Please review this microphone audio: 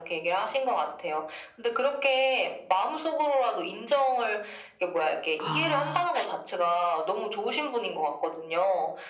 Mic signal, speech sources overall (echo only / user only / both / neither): both